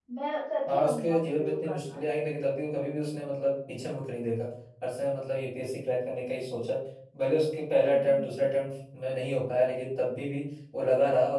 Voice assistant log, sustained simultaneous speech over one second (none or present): present